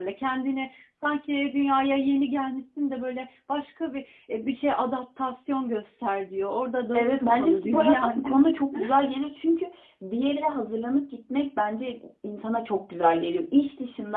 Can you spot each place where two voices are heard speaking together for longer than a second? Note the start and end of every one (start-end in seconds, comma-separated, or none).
6.9-8.4